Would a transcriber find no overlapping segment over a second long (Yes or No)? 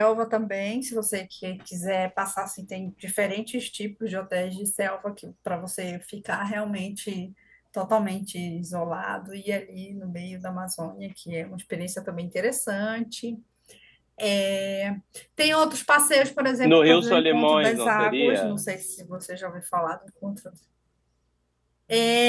No